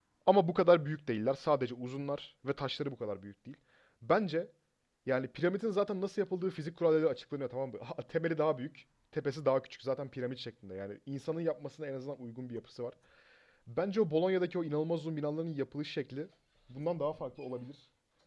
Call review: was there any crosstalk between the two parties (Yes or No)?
No